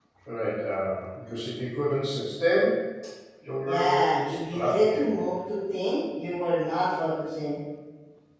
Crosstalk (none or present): present